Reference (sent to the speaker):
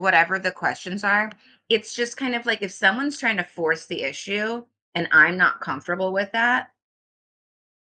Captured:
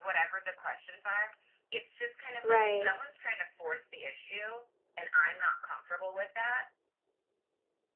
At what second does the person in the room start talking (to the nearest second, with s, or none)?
2 s